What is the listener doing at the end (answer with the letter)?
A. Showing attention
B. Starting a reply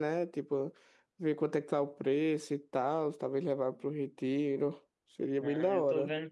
B